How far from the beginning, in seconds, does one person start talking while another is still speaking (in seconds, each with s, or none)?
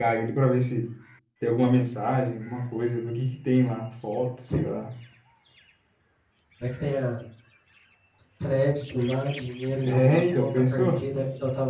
9.8 s